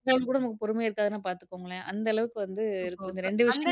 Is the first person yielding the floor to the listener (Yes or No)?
Yes